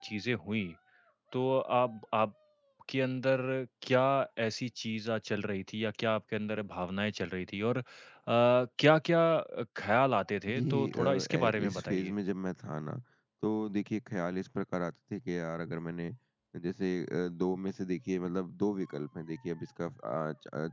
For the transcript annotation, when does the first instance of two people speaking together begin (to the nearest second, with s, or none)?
10 s